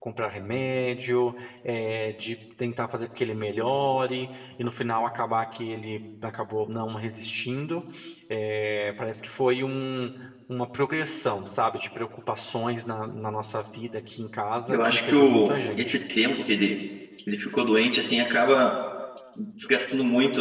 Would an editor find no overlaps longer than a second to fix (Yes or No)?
No